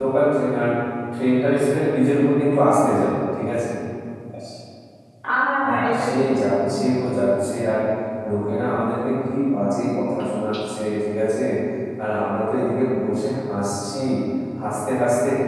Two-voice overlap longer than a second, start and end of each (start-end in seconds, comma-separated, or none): 5.6-6.9